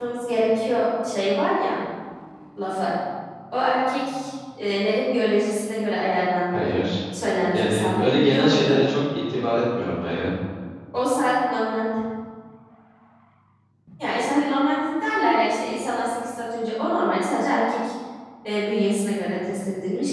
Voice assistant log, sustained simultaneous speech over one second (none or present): present